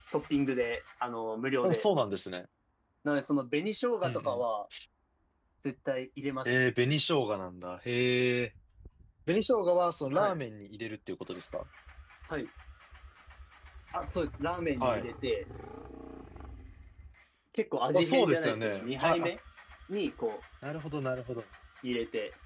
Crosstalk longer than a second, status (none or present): present